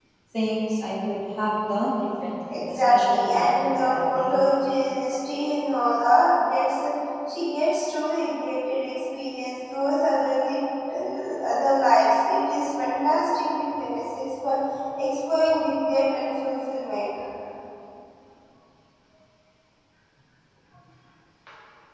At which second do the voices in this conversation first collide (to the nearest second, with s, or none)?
2 s